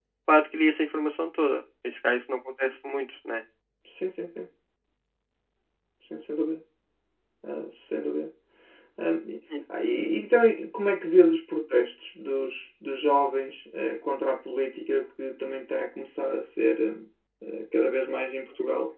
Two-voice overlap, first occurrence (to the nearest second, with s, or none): none